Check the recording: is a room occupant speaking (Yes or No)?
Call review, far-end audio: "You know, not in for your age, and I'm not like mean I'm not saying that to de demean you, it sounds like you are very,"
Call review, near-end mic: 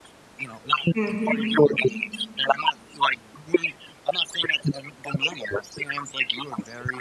Yes